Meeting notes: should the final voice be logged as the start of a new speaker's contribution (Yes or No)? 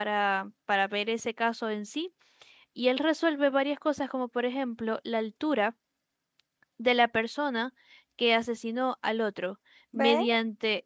No